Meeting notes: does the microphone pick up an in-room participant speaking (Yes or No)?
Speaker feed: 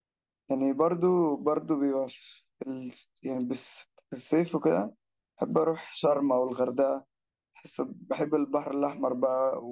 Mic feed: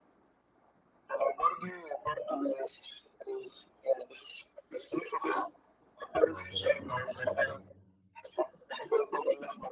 Yes